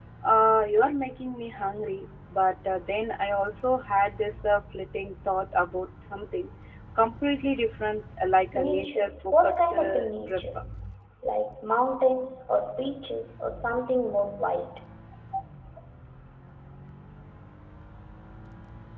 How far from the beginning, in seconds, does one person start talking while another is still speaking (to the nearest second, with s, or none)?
9 s